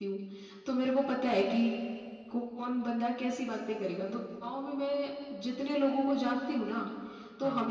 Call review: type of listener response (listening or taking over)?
listening